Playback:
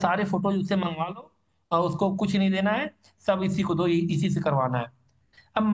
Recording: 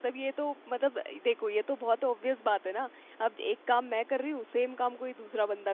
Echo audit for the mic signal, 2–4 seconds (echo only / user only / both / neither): user only